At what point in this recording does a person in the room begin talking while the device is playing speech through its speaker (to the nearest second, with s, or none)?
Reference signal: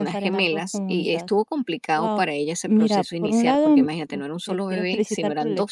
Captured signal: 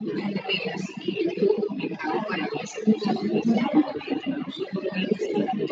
none